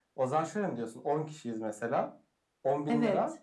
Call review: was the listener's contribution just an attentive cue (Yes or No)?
Yes